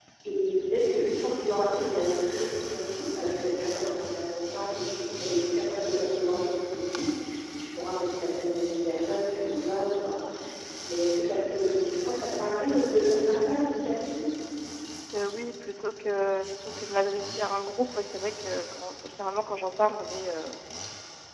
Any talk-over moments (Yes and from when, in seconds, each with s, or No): No